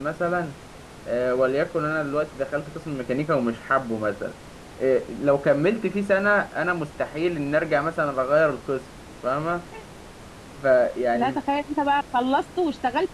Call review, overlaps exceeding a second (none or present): none